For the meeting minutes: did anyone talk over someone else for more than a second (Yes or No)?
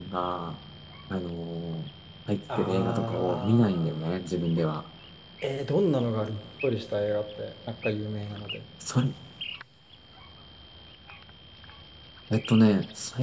Yes